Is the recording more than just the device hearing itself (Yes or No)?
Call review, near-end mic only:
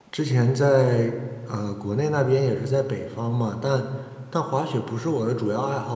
Yes